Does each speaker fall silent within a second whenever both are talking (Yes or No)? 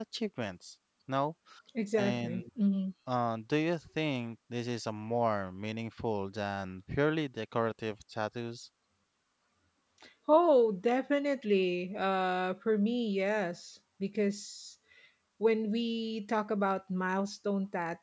Yes